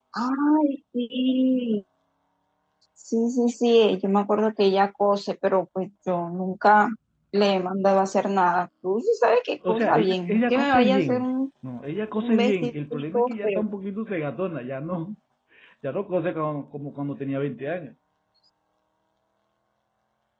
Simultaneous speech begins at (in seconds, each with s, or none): 9.7 s